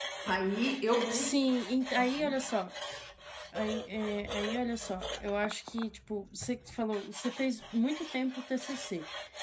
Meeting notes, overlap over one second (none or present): none